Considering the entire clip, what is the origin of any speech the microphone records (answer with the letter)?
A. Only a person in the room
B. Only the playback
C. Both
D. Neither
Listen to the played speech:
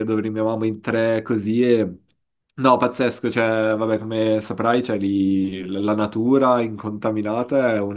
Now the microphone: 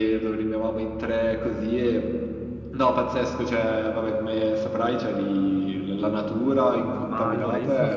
C